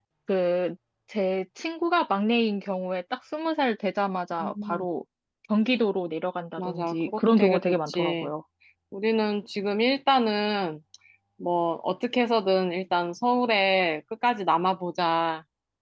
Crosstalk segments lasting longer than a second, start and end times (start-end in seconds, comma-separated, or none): 6.6-8.3